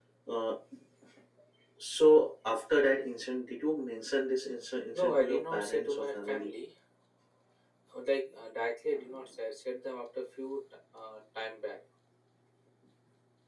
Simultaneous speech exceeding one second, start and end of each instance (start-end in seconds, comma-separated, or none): 5.0-6.5